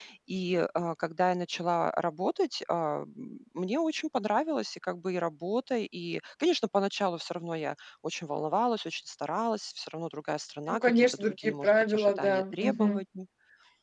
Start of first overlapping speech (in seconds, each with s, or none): 10.7 s